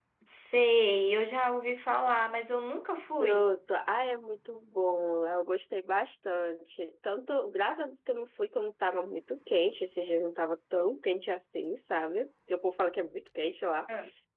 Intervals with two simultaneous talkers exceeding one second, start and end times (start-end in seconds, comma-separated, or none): none